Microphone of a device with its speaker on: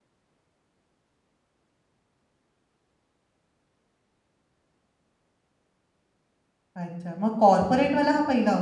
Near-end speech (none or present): present